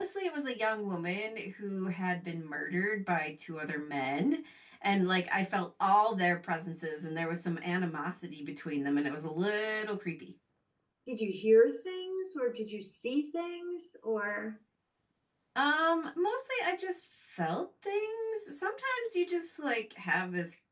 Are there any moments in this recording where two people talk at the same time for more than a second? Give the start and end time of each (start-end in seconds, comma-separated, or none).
none